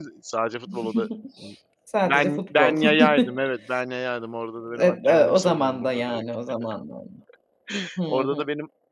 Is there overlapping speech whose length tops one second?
Yes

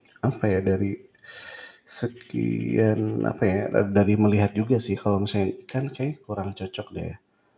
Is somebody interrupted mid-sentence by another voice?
No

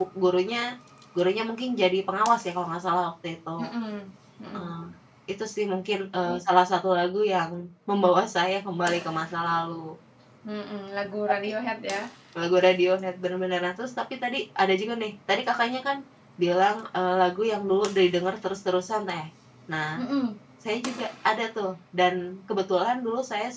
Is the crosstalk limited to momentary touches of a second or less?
Yes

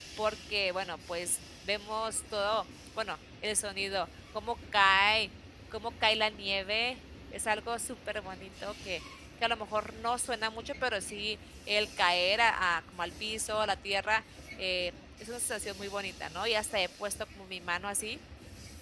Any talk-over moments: No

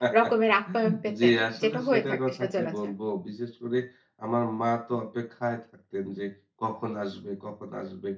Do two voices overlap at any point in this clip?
Yes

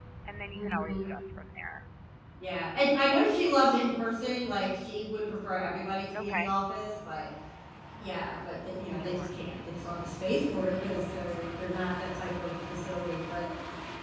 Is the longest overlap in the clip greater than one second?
No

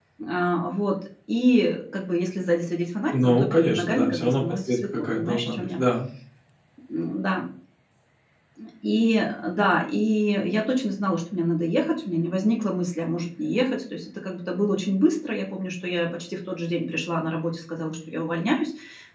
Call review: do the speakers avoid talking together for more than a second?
No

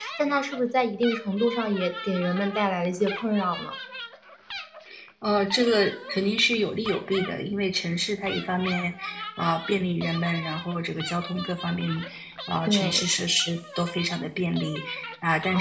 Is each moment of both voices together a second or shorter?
Yes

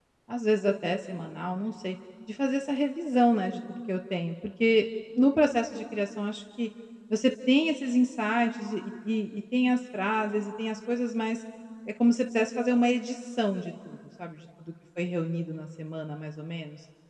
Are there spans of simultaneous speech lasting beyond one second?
No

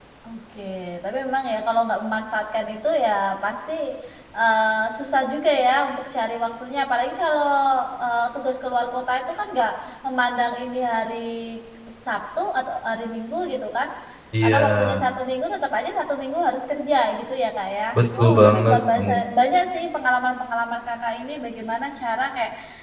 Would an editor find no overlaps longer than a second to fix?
No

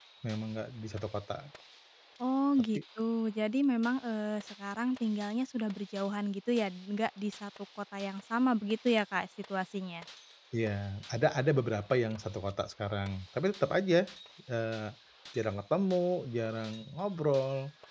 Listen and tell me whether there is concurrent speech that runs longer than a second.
No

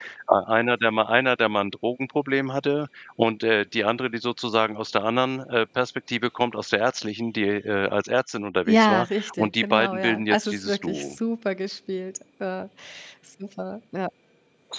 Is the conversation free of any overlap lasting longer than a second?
No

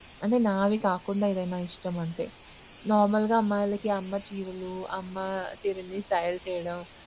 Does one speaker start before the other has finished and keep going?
No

